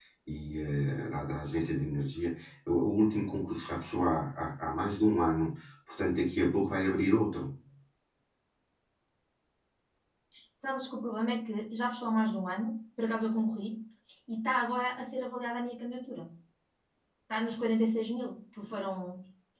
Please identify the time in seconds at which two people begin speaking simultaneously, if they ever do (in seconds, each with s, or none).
none